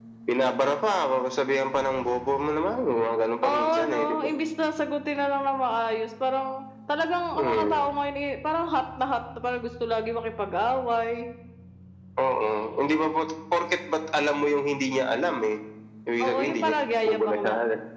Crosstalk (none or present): present